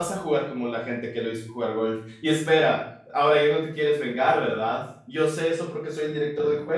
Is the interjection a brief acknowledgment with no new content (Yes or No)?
Yes